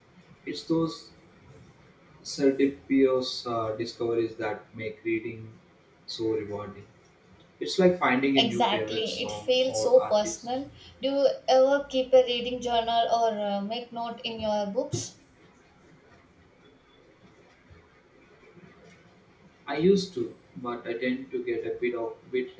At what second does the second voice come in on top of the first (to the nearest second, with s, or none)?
8 s